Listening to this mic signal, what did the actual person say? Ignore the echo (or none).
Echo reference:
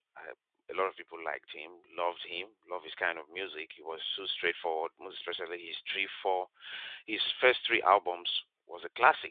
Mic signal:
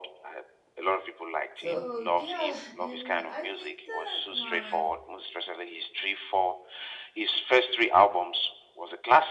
So yeah, and I think that my